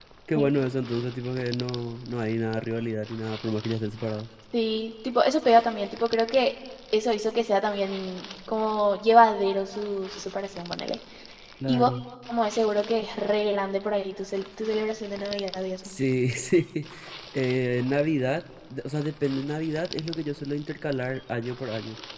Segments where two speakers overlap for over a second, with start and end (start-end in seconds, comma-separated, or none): none